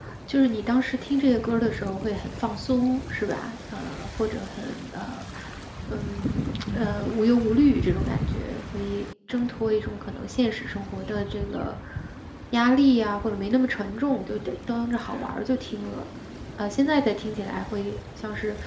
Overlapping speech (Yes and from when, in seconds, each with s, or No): No